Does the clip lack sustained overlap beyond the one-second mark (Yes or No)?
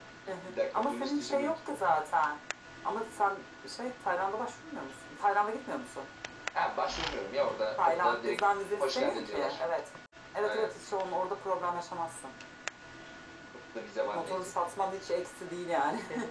No